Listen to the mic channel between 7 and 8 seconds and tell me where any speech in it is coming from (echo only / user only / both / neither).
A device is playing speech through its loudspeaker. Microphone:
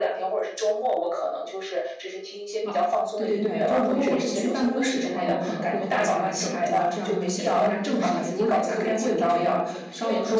both